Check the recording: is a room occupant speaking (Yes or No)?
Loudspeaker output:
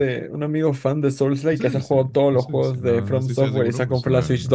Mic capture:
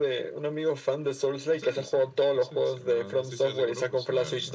No